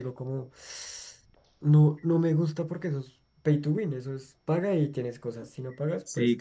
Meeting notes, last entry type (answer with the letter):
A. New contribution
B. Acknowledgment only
A